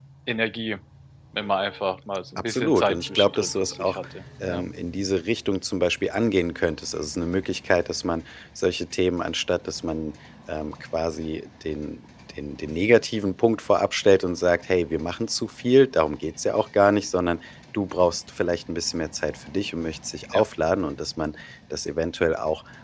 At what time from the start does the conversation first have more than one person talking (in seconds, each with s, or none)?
2.4 s